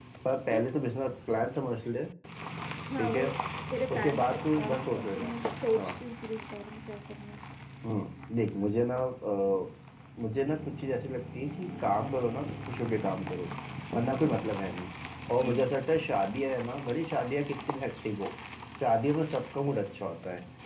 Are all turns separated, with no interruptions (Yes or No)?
No